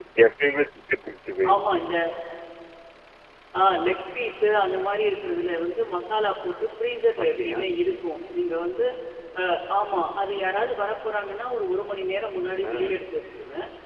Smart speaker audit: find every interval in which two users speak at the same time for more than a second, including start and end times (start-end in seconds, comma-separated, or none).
none